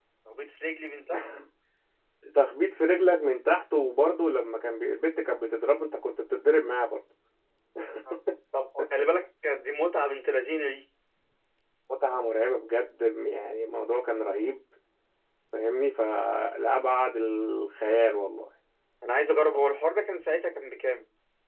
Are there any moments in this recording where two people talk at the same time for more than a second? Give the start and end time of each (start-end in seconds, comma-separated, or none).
none